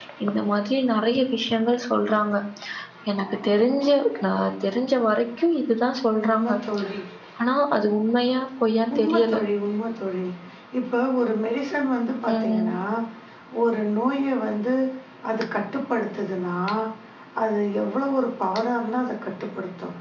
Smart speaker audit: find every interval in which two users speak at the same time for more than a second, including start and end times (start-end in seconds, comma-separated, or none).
none